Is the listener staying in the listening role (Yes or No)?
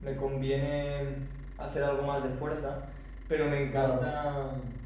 Yes